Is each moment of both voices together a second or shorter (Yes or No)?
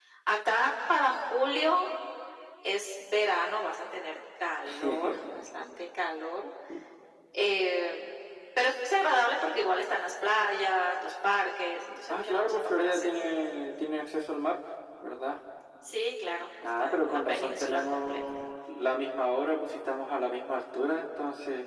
No